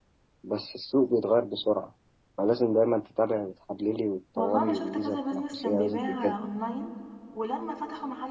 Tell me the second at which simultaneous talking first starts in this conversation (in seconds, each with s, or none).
4.4 s